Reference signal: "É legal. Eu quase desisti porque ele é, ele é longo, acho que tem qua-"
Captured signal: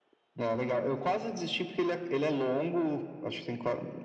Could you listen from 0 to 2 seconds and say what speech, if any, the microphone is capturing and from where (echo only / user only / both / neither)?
echo only